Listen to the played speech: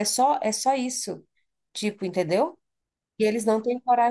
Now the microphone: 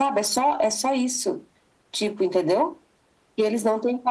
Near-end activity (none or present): none